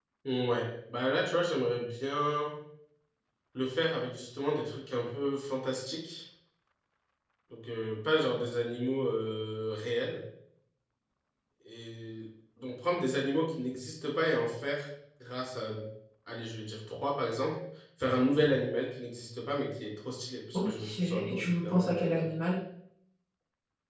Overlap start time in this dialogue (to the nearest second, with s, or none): 21 s